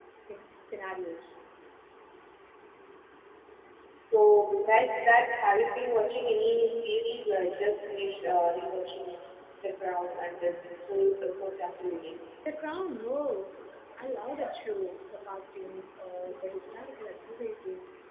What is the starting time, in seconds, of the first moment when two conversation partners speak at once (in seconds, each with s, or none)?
none